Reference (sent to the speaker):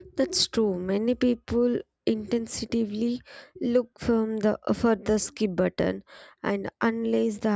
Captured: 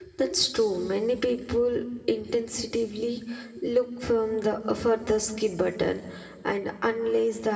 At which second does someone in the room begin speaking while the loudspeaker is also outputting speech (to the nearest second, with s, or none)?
none